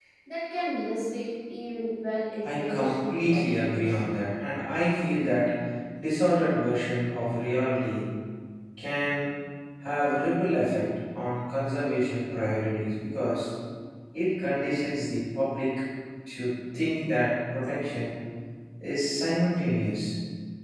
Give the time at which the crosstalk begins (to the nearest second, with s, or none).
2 s